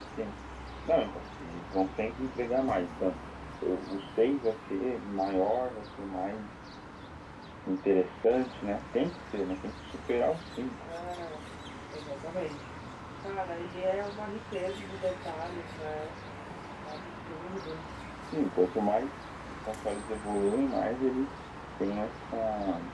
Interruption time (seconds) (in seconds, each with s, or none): none